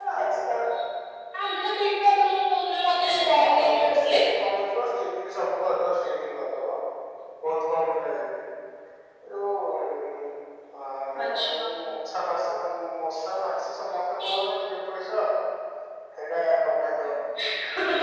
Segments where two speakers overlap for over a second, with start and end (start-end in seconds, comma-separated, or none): 2.9-4.2